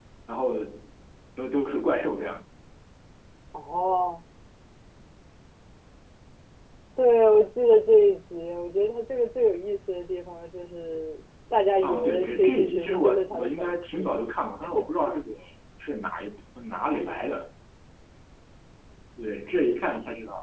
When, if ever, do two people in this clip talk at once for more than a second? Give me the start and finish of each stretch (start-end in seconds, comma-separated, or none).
11.8-14.1